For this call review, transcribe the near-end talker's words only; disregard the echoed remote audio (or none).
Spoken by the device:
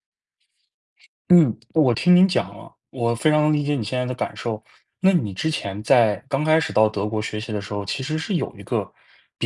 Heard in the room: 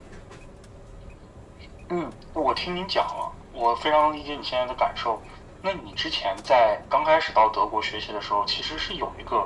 none